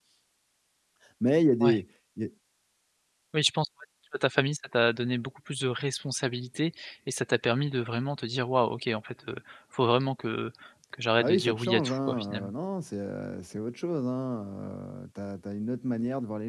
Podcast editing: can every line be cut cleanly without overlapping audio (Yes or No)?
No